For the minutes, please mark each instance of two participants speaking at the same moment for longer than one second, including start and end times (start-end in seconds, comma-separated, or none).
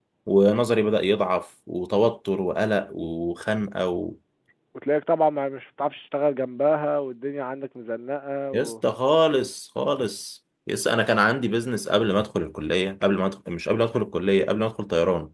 none